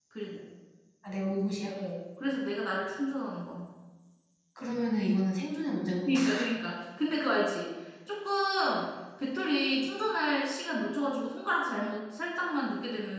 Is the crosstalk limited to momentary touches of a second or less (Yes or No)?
Yes